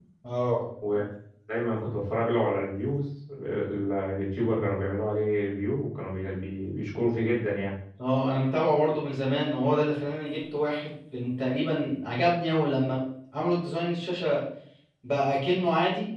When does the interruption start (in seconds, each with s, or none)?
none